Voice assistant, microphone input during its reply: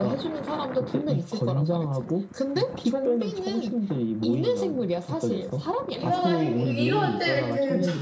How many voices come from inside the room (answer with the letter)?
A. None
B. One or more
B